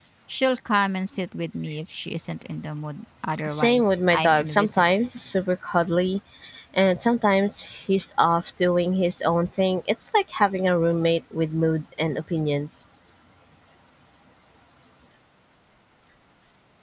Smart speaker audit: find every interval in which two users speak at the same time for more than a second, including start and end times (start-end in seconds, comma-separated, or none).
3.5-4.9